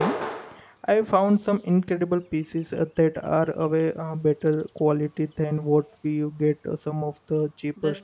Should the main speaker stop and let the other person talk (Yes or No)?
Yes